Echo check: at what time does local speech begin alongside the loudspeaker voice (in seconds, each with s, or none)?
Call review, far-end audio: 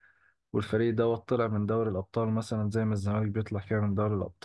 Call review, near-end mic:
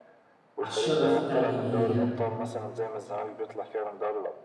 0.6 s